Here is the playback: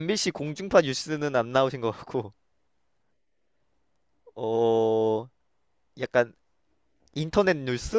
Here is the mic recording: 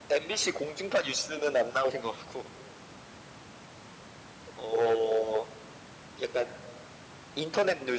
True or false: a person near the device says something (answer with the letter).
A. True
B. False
B